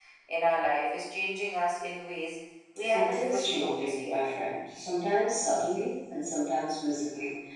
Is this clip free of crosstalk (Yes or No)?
No